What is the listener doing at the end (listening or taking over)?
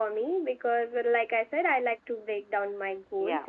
listening